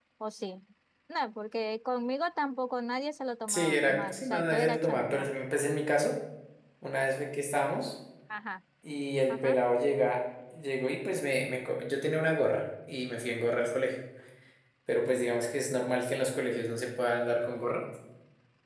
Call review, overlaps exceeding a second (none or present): present